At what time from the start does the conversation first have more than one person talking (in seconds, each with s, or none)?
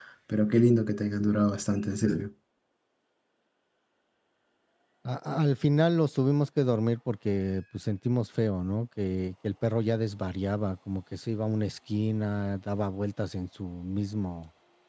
none